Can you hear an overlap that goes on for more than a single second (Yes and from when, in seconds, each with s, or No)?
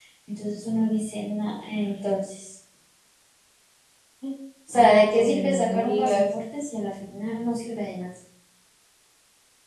Yes, from 4.7 s